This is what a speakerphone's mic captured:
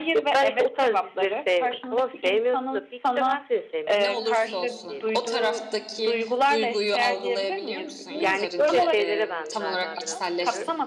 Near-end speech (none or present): present